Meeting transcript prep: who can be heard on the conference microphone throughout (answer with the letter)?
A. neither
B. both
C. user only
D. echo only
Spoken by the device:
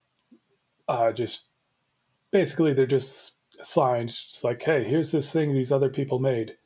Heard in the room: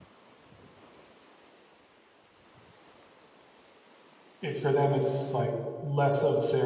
C